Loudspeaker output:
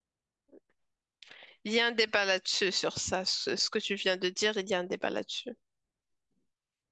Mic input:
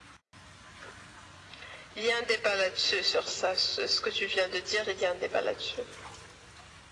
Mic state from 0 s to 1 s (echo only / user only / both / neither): neither